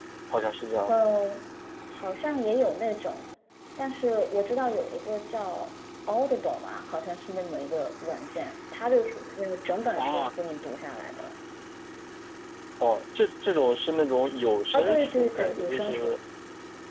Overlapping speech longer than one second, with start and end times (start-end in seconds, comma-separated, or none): 14.7-16.2